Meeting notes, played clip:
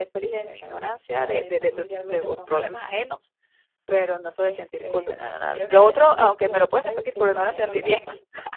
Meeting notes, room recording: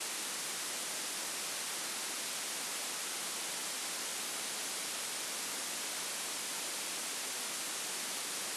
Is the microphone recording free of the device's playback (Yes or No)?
Yes